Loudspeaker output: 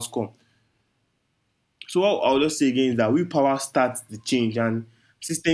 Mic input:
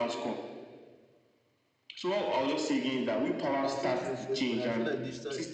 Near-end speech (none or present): present